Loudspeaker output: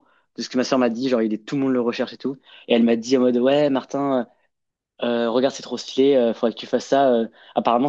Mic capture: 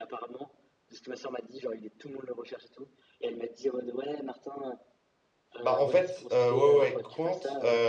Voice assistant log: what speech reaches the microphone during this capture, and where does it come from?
both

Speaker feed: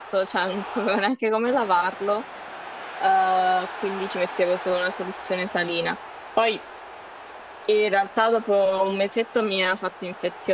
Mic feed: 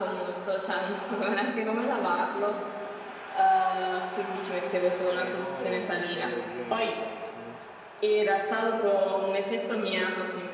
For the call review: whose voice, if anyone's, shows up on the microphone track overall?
both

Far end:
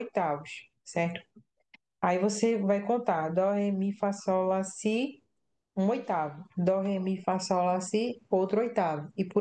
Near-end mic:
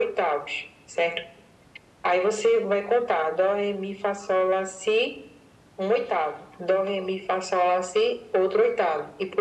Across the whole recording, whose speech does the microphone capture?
echo only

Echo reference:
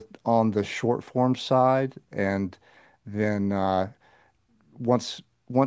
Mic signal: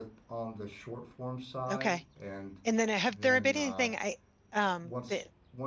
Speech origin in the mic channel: both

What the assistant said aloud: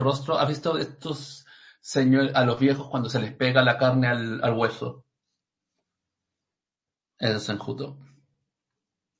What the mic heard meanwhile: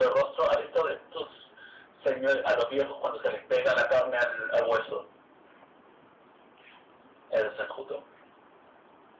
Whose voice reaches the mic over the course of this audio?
echo only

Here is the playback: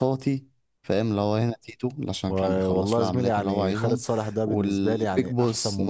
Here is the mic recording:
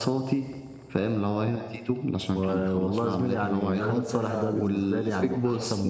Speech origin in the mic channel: both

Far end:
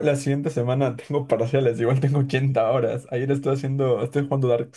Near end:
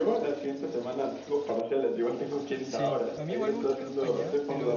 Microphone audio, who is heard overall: both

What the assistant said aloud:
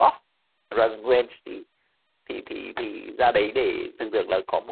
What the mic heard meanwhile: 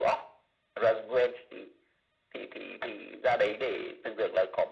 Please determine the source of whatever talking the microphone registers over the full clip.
echo only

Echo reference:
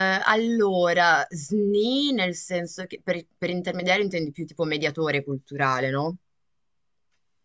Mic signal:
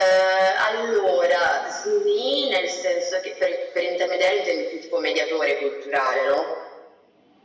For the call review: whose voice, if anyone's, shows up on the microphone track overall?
echo only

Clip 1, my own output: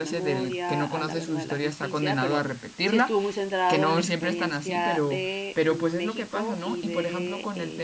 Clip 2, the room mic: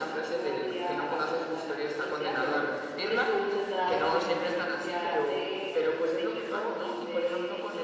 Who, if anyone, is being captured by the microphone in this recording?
echo only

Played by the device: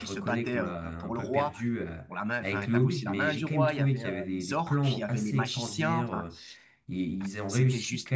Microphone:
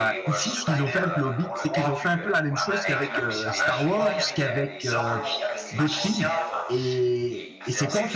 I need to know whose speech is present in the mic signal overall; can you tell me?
both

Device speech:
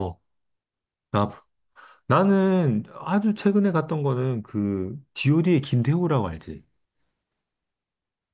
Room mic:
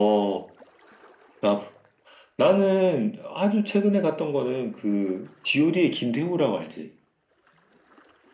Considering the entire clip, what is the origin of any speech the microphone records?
echo only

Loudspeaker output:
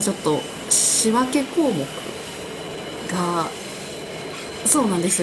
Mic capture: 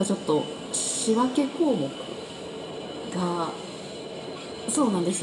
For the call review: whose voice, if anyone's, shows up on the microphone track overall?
echo only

